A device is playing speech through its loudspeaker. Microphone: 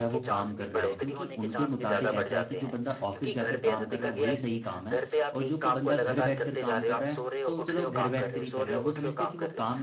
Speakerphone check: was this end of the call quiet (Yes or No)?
No